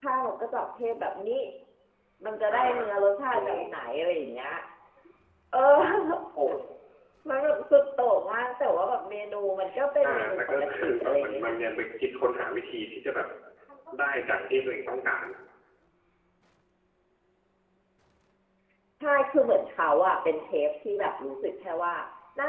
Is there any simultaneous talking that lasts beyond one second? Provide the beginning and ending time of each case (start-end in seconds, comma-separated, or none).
10.0-11.6